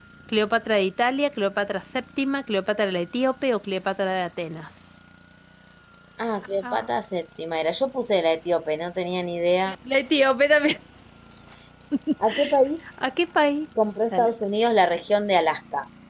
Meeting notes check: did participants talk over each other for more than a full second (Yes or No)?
No